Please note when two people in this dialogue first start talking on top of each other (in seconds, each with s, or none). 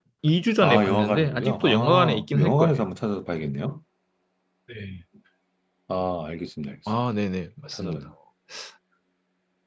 0.6 s